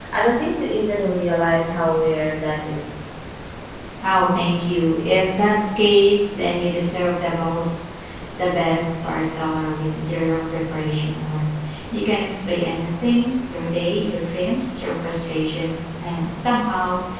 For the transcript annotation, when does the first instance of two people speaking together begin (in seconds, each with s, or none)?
none